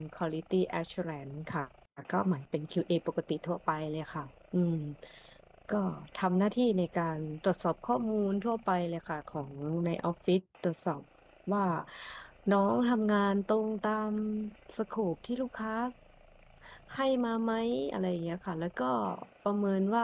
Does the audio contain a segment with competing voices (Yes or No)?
No